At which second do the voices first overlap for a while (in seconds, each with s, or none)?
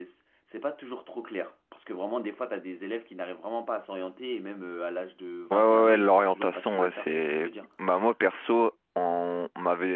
5.5 s